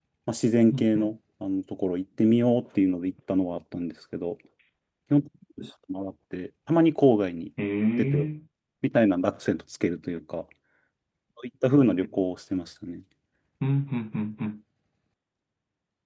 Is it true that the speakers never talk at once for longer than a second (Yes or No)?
Yes